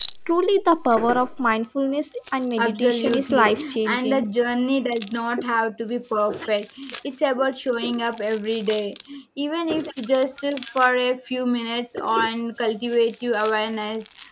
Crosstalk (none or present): present